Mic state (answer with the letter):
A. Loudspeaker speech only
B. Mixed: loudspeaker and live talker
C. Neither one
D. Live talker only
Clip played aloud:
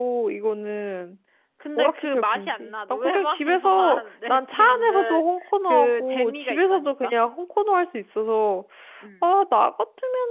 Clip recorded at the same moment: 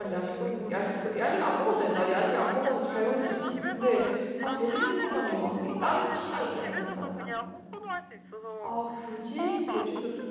B